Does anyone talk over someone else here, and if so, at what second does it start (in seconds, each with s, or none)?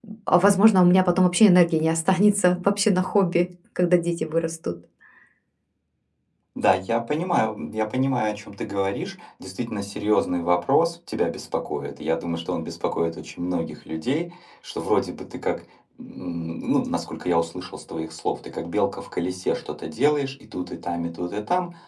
none